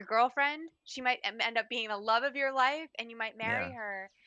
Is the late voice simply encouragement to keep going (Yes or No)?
Yes